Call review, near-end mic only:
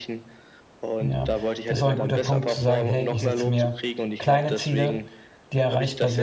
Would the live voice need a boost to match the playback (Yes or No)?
No